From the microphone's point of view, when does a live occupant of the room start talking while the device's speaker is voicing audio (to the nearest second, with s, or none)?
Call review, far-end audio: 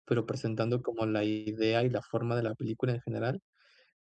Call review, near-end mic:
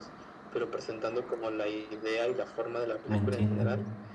3 s